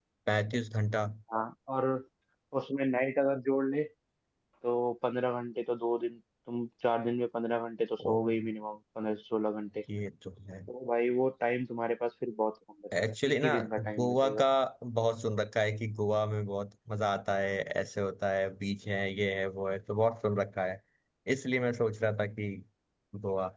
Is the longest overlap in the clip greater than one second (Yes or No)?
Yes